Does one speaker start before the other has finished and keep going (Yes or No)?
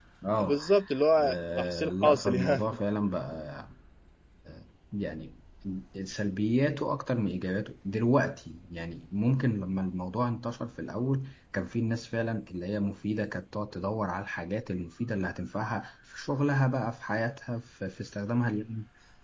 Yes